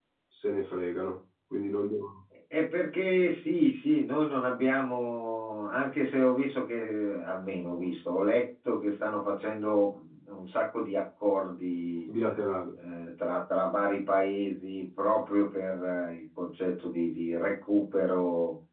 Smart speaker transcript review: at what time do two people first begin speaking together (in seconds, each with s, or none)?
none